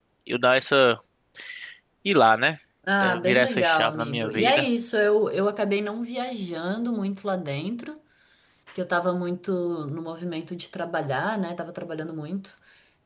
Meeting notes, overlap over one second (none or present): present